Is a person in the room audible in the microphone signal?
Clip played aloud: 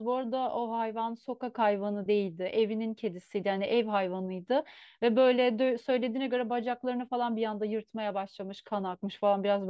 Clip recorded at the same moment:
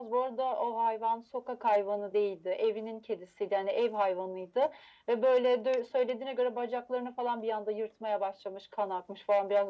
No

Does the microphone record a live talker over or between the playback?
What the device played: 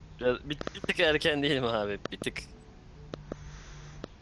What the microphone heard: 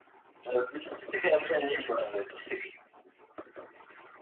No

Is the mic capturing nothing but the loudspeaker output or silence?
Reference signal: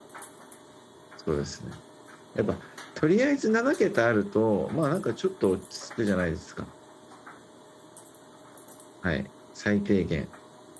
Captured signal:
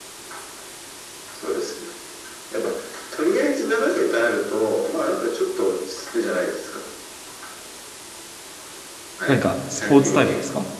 No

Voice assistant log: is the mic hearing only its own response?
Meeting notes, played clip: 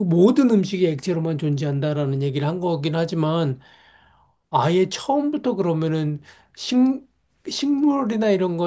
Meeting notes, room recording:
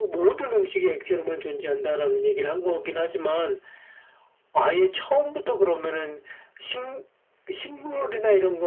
Yes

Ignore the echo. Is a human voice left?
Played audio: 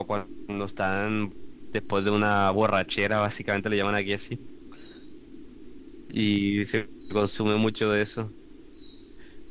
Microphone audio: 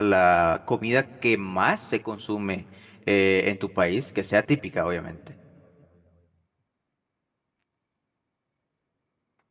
Yes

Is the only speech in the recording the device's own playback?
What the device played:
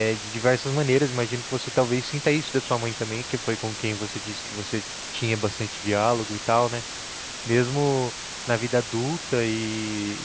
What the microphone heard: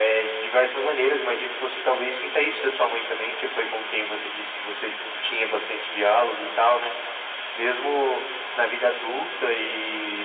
Yes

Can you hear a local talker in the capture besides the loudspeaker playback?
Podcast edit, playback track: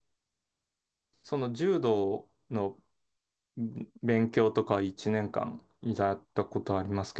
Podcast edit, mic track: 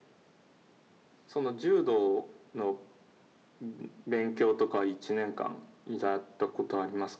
No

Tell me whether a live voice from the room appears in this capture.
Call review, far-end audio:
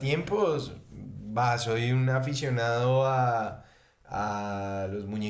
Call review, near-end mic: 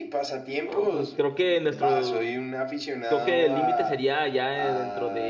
Yes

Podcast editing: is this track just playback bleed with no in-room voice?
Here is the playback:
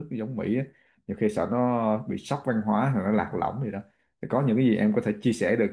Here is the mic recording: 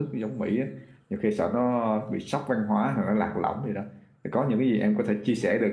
Yes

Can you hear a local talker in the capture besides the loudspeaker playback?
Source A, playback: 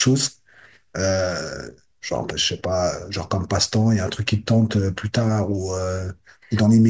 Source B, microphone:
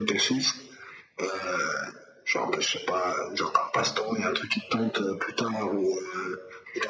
Yes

